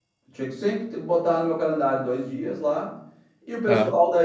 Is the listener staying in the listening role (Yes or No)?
Yes